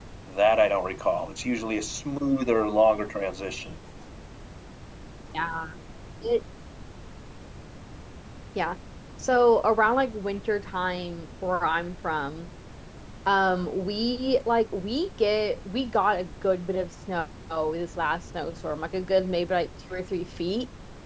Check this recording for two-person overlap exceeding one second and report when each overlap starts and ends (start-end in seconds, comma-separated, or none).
none